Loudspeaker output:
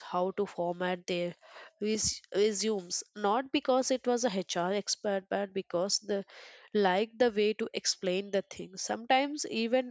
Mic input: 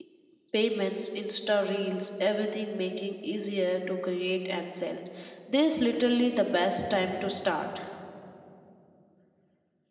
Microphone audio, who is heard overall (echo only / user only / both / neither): user only